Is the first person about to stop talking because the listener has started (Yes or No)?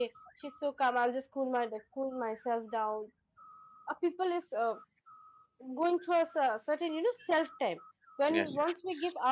No